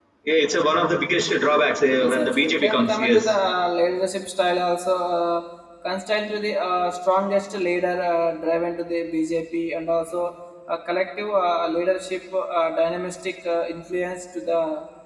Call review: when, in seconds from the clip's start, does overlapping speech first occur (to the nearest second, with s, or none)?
2 s